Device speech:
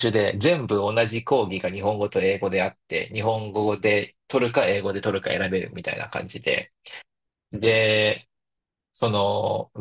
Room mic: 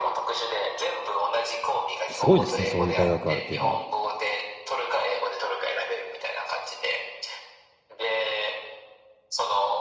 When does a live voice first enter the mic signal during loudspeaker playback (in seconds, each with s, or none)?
2.1 s